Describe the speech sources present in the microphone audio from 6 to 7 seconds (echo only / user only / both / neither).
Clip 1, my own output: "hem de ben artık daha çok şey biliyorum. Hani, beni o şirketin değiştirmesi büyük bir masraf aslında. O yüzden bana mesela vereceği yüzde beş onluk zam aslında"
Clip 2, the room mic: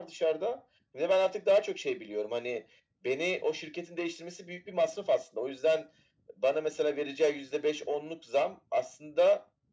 echo only